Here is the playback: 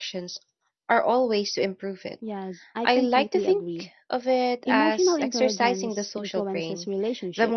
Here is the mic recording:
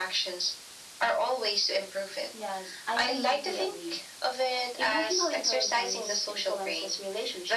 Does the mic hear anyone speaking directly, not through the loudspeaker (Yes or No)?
No